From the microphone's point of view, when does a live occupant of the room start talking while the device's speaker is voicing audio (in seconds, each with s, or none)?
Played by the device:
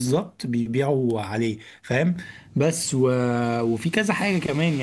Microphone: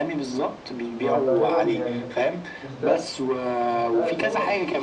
1.0 s